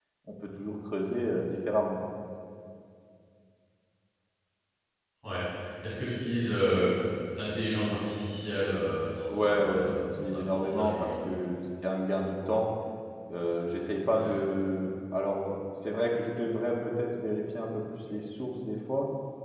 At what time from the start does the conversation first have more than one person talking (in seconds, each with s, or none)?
9.3 s